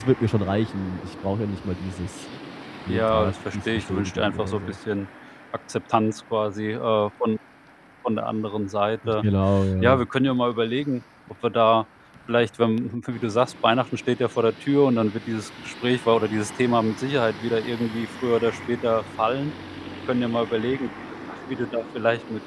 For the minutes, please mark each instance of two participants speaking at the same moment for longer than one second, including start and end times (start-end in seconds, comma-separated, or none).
2.9-4.6